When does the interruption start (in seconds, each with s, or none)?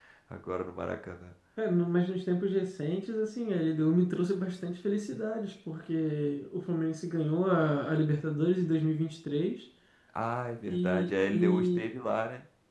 10.7 s